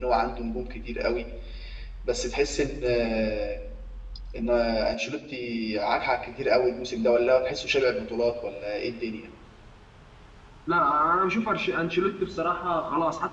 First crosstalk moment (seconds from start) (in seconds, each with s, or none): none